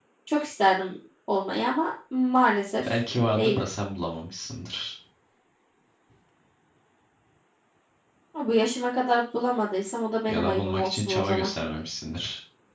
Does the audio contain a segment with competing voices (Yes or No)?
Yes